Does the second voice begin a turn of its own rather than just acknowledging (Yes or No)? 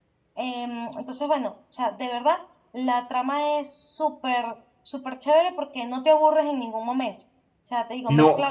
No